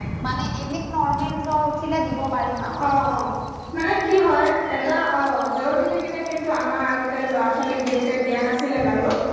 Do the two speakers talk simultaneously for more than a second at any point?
No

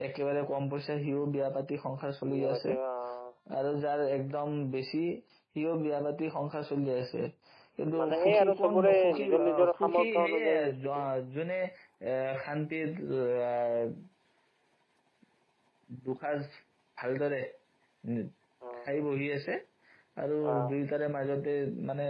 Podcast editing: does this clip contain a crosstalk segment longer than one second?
Yes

